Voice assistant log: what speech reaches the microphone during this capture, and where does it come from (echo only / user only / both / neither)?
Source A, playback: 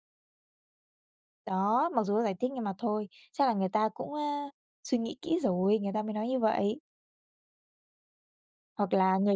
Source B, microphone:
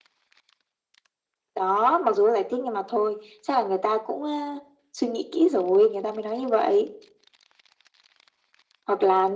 echo only